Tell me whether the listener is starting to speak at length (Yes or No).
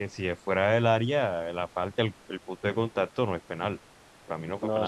Yes